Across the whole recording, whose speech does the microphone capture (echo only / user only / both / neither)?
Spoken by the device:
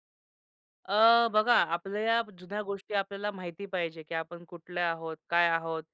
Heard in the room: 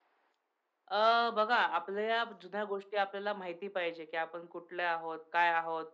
echo only